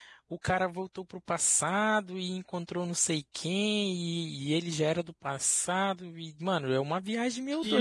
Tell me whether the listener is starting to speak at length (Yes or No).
No